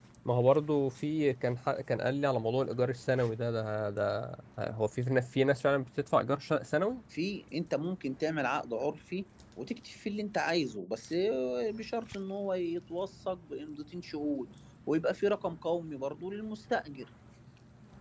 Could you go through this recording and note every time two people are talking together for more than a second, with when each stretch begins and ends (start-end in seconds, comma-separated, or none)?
none